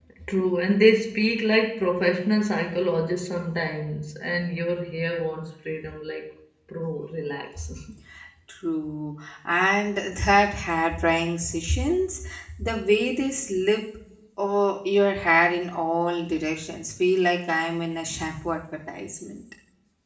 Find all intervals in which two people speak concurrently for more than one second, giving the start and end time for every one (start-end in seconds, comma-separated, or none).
none